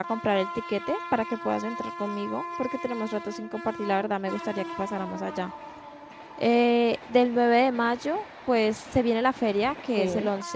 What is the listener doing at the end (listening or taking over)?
listening